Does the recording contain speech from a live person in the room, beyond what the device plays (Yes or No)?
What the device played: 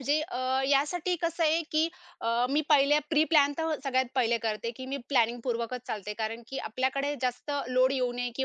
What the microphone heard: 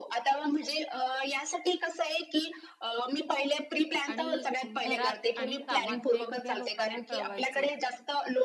Yes